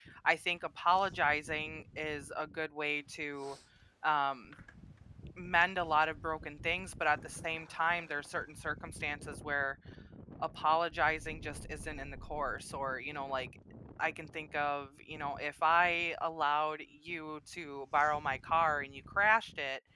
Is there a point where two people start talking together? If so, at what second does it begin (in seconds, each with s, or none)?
none